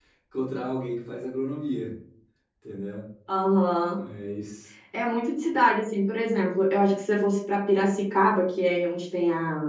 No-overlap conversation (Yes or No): Yes